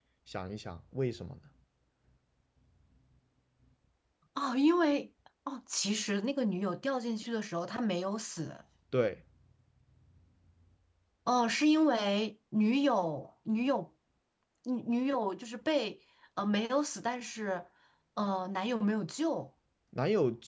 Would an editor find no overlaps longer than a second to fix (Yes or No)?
Yes